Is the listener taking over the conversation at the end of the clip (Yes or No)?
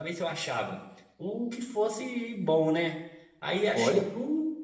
No